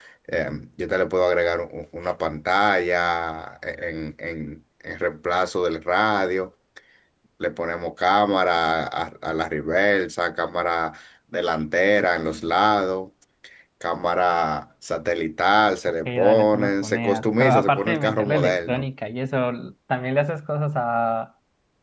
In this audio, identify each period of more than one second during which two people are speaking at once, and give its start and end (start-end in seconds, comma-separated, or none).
16.1-18.9